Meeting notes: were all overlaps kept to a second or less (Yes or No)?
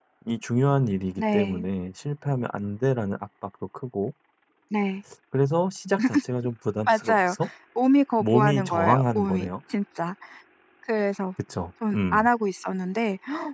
No